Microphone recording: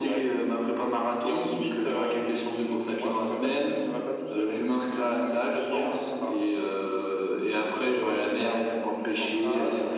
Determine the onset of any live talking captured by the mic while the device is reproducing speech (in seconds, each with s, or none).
none